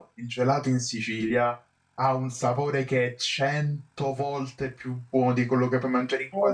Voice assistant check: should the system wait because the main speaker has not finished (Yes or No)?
No